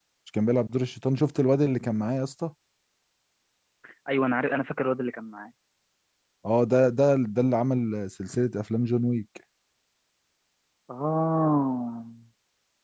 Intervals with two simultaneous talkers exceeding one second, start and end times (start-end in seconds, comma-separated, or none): none